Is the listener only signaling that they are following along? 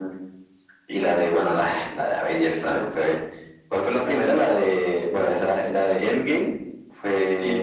No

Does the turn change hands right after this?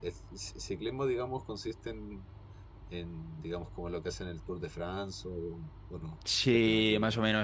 Yes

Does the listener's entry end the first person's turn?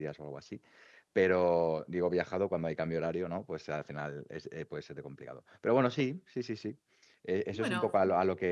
No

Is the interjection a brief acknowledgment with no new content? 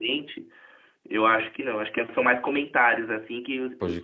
Yes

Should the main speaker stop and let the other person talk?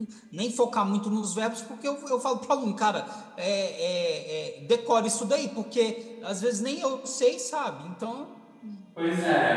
Yes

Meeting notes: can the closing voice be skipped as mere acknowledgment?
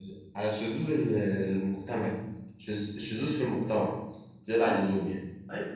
No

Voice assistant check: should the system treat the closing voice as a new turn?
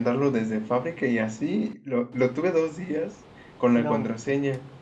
No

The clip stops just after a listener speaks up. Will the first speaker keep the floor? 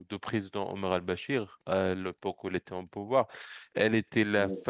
Yes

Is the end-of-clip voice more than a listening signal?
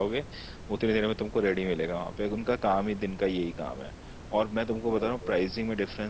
No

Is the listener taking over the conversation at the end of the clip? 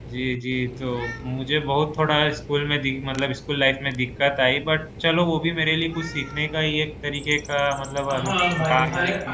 Yes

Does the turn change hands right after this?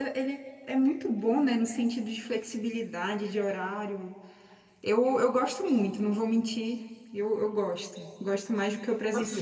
Yes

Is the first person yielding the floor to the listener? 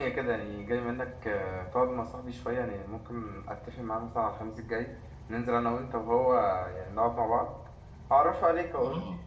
Yes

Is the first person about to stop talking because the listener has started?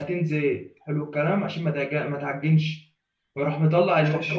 No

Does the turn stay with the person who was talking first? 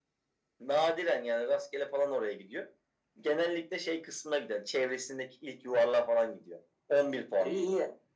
No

